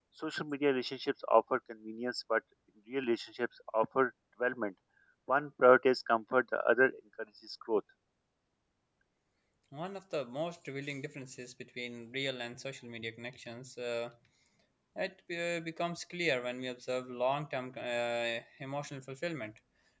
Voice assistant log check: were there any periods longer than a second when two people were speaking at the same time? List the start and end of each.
none

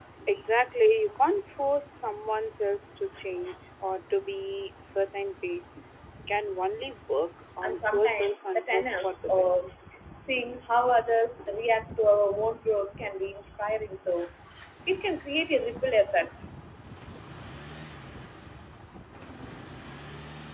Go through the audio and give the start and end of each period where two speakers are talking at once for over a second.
7.6-9.6

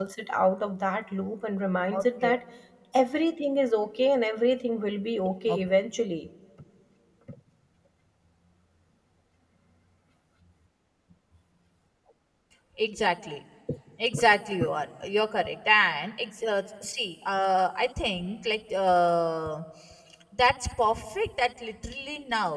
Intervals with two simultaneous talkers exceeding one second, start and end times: none

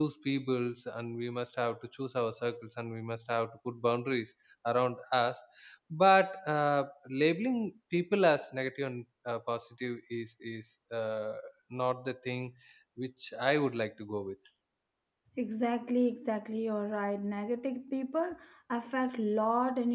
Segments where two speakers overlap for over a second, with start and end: none

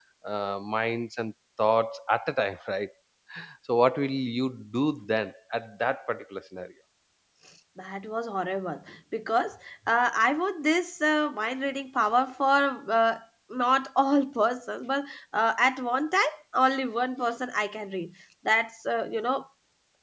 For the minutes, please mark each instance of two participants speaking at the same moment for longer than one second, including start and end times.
none

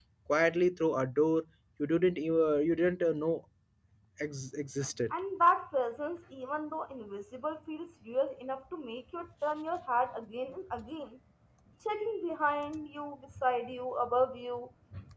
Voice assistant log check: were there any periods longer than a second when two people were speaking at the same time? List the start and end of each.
none

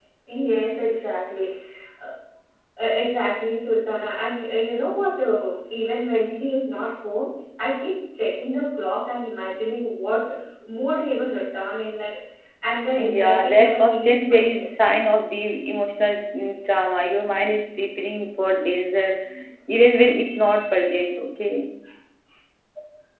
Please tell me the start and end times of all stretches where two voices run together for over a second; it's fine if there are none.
13.0-14.8

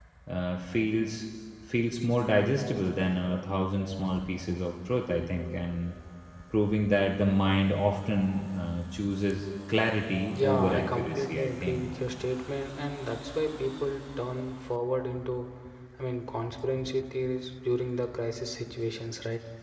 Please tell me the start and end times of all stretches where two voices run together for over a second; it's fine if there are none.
10.3-11.9

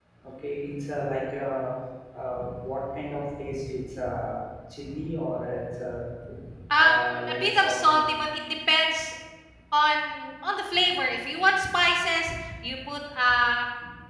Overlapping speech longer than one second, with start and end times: 6.8-8.1

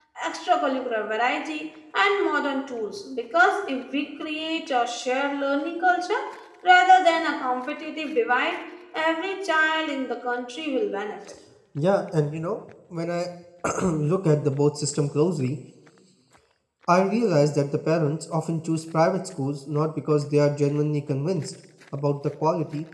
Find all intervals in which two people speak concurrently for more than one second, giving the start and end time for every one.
none

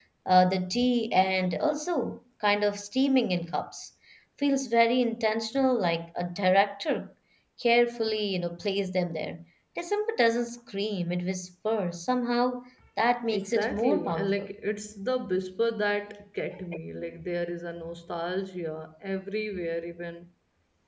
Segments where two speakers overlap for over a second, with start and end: 13.3-14.5

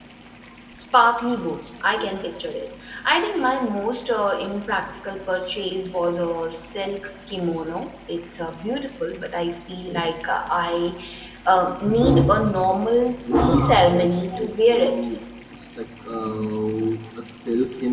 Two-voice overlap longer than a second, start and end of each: 13.3-15.0

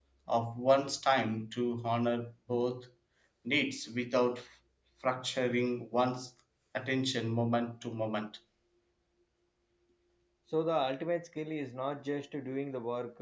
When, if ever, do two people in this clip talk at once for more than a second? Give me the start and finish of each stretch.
none

